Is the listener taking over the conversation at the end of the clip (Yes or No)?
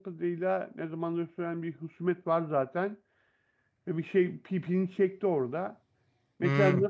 No